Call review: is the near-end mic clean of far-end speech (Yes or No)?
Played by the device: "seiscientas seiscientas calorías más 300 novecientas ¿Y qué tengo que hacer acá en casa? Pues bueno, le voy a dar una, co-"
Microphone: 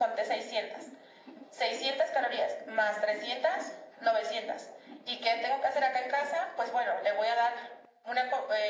No